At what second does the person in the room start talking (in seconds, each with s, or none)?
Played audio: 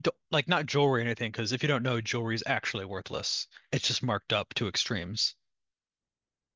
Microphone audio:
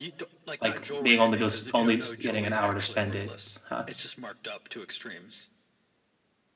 0.6 s